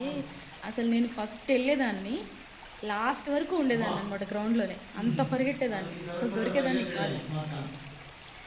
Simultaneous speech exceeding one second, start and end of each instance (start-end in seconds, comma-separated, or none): 5.7-7.2